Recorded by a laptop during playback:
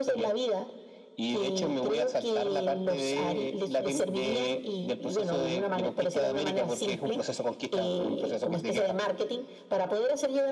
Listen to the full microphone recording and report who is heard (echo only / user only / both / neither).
echo only